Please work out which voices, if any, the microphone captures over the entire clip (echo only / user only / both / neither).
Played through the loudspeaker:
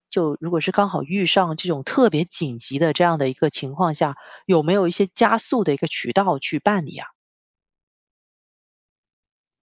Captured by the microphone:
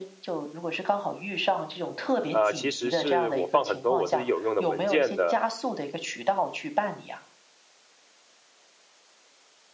both